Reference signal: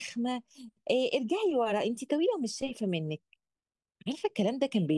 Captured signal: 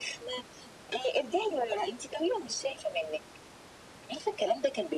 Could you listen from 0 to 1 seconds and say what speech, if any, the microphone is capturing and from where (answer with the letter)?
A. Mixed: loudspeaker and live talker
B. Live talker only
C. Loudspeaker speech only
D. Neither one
C